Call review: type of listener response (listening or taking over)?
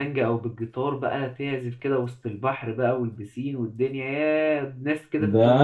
taking over